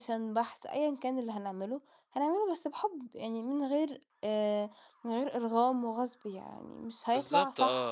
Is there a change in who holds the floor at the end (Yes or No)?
Yes